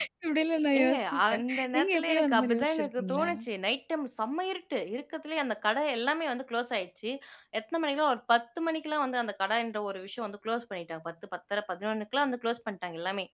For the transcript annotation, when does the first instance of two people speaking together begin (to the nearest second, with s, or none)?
1 s